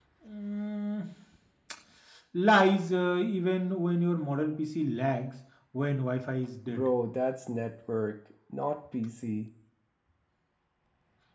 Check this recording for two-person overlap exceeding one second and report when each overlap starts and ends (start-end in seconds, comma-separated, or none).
none